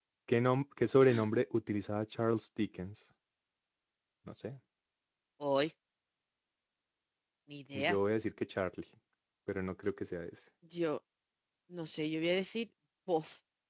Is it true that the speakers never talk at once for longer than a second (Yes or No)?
Yes